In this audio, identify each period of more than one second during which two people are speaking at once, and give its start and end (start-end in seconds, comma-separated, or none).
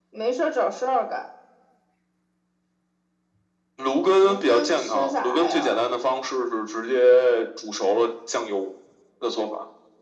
4.2-5.8